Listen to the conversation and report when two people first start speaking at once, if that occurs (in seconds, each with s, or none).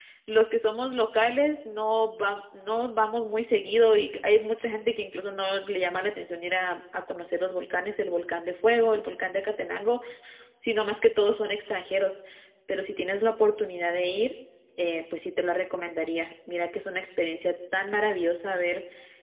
none